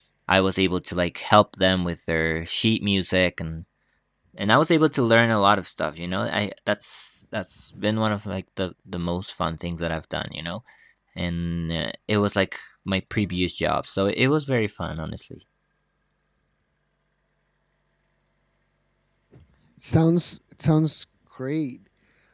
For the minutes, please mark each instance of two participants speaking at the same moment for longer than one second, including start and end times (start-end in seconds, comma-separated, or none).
none